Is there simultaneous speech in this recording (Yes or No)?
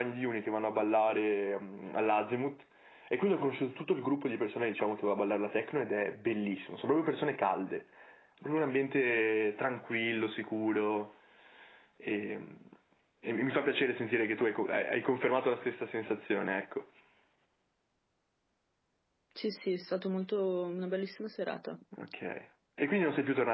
No